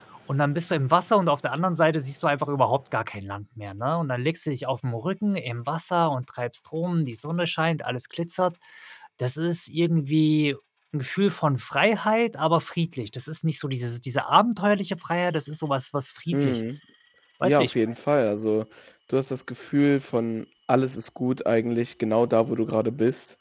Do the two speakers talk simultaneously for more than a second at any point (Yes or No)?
No